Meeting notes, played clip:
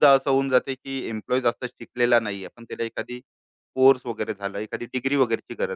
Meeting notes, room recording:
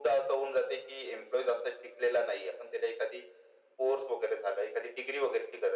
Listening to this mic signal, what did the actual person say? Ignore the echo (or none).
none